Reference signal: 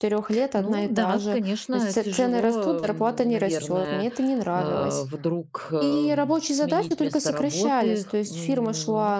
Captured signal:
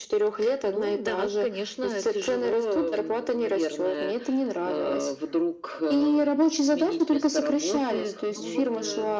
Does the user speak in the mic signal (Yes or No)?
Yes